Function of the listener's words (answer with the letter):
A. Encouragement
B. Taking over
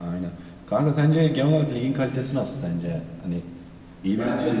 B